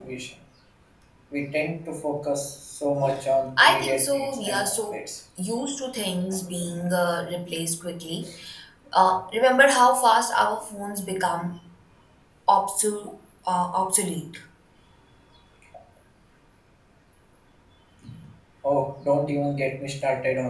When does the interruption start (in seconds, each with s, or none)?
3.6 s